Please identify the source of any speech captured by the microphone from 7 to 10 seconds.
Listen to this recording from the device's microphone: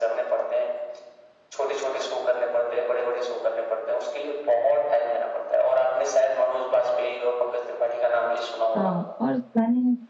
both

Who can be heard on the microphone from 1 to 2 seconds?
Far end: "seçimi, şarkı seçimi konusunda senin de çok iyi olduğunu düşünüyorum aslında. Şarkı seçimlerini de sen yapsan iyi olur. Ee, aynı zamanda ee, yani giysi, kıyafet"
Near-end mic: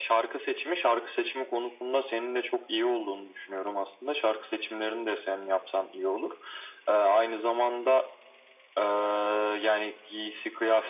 echo only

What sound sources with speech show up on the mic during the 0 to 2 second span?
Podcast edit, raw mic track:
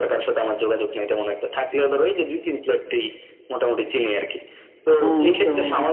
echo only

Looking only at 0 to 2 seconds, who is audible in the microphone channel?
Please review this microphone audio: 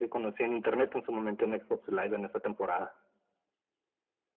echo only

